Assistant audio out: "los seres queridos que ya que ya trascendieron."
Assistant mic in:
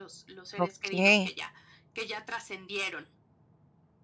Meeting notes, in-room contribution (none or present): present